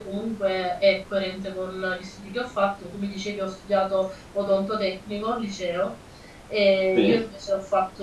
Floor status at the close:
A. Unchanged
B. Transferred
A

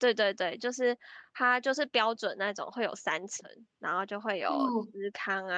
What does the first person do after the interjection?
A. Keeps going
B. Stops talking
A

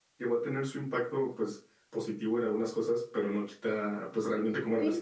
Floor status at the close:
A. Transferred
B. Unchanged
A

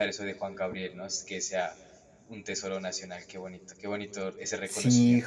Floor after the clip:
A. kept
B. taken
B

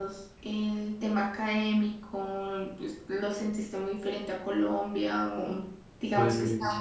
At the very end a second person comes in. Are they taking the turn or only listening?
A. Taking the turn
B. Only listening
B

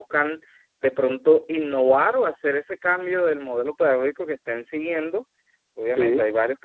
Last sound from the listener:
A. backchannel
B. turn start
A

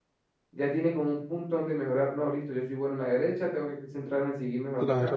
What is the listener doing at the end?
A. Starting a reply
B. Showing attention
A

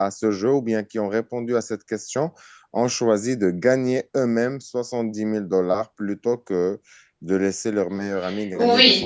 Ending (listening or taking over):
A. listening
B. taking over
B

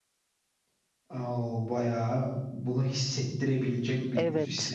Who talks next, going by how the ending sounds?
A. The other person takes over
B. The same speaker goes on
A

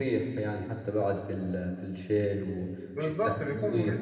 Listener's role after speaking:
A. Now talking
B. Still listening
A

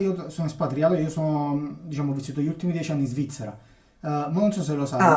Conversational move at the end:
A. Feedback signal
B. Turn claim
A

